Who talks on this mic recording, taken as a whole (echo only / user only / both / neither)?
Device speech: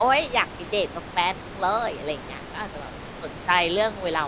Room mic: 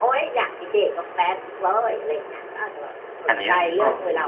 both